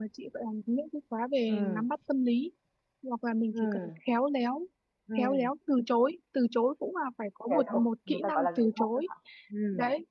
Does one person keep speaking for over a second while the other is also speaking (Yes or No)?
Yes